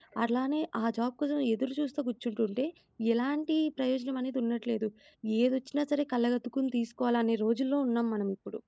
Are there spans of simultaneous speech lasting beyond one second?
No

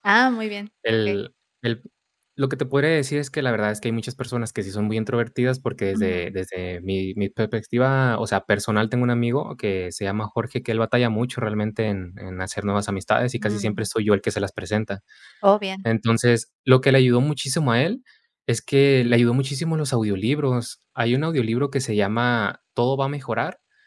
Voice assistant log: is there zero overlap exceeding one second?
Yes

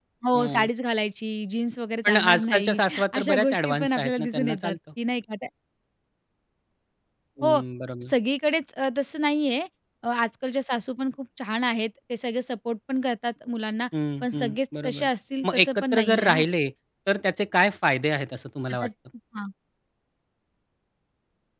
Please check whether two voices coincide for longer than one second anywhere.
Yes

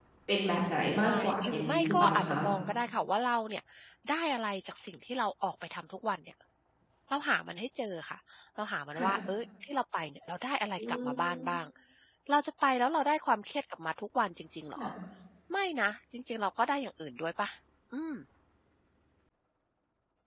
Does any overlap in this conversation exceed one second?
Yes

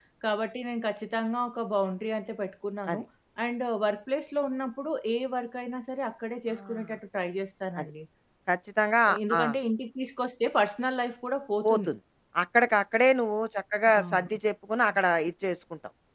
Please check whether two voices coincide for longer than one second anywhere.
No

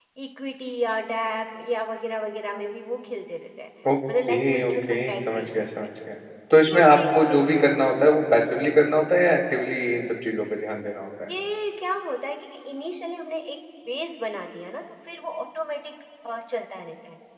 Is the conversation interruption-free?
No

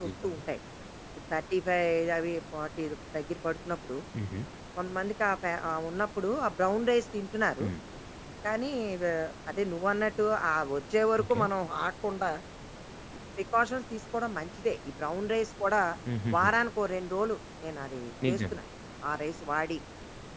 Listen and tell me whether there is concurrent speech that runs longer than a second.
No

